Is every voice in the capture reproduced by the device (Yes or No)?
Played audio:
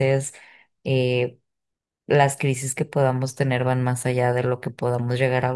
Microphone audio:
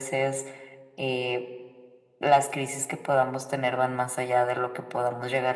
Yes